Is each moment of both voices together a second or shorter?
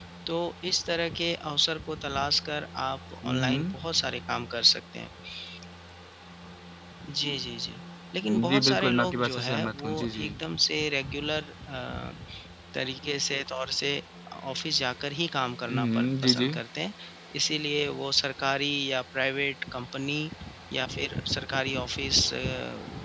No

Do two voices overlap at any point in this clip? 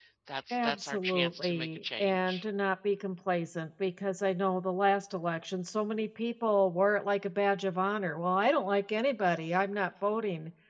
Yes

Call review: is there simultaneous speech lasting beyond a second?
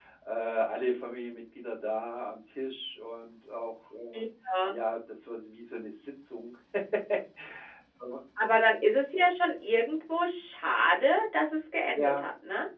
No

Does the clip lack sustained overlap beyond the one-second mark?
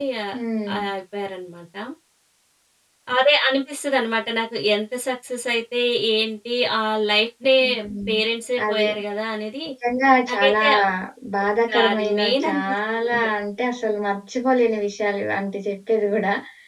No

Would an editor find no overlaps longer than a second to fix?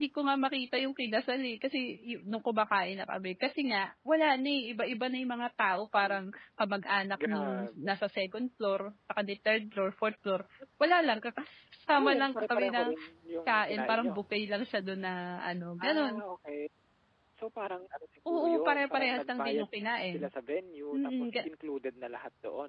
No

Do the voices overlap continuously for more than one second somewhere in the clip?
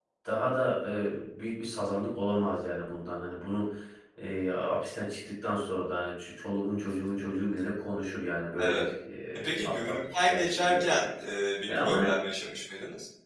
Yes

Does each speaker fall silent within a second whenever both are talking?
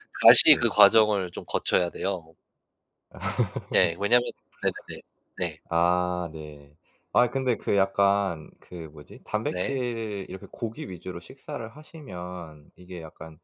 Yes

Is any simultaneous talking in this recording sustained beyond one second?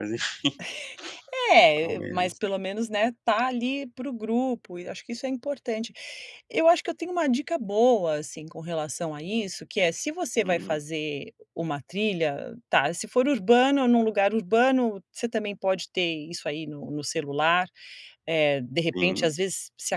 No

